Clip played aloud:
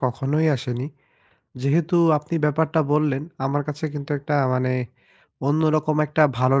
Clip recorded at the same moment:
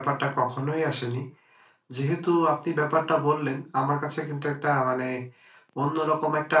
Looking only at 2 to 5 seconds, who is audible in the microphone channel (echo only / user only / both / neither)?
echo only